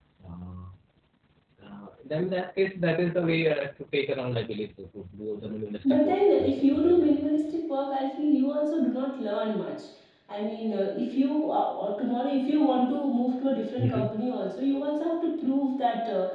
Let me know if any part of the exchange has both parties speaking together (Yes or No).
Yes